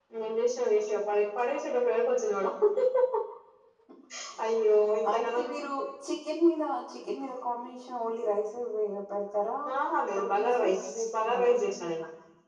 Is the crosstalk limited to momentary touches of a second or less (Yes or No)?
No